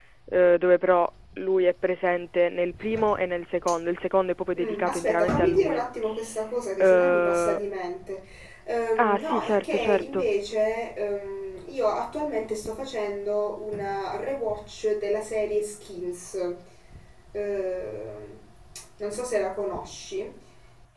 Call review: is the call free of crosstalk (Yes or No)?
No